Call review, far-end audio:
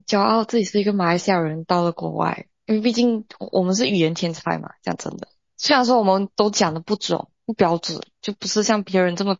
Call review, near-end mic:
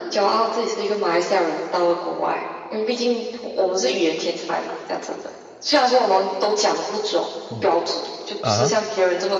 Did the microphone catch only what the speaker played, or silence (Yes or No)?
No